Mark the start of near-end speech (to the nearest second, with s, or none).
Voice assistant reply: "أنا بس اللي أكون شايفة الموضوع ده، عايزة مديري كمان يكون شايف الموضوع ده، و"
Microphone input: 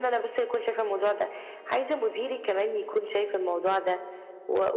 none